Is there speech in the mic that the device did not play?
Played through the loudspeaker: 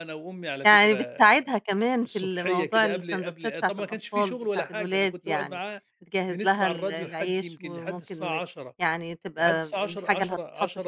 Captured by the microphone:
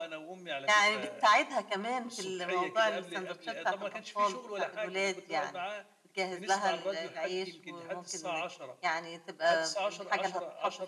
No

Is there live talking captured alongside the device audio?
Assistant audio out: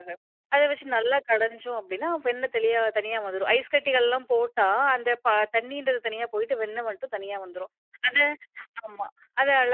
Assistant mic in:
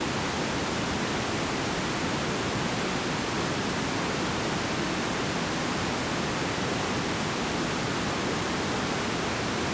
No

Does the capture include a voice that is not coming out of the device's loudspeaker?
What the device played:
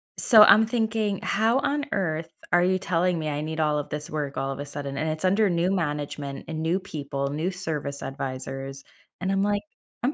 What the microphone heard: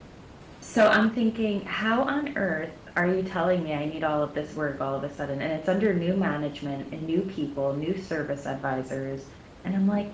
No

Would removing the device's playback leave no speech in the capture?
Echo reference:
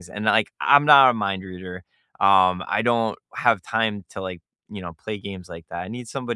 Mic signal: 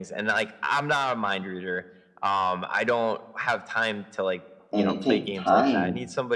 No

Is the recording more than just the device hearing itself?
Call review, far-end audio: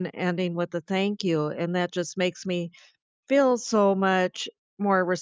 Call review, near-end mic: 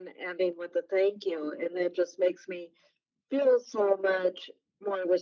No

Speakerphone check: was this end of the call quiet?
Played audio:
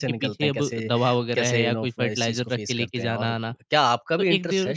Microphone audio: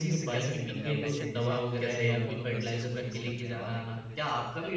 No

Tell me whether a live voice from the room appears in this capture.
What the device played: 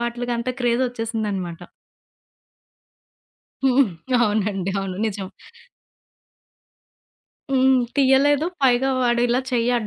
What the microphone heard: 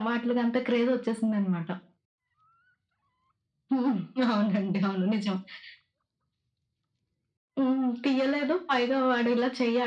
No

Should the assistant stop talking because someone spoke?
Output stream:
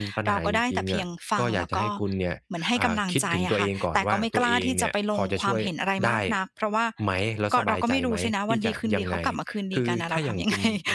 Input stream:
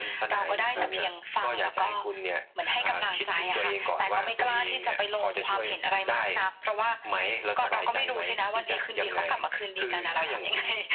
Yes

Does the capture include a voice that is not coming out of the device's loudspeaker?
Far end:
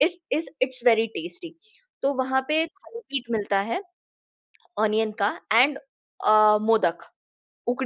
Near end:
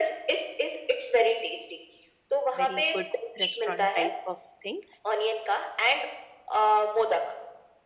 Yes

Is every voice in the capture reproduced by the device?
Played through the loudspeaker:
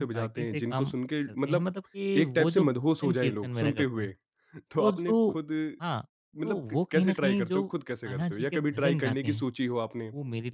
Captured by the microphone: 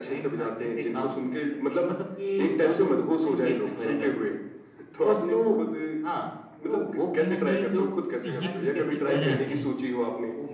No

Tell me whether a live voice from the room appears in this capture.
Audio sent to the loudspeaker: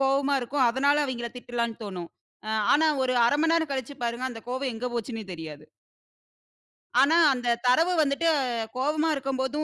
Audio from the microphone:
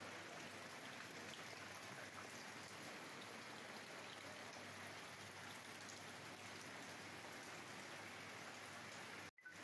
No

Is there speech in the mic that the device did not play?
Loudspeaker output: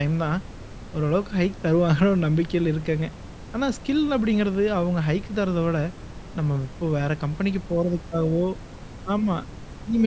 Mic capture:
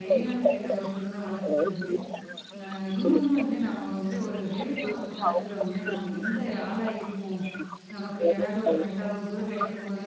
Yes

